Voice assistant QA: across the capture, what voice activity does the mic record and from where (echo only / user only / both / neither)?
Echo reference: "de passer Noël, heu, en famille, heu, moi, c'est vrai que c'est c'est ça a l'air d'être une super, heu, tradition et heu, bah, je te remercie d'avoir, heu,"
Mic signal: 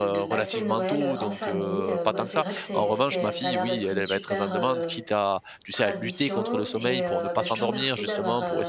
both